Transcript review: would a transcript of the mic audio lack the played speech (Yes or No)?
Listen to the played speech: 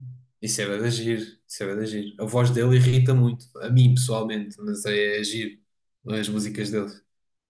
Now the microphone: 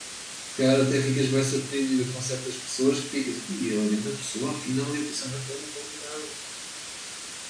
Yes